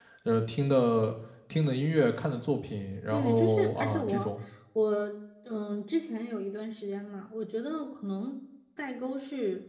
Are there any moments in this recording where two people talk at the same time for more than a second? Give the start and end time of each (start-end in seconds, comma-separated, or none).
3.1-4.3